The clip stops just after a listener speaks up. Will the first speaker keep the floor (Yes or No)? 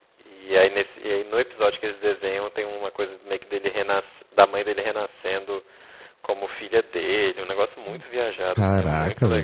No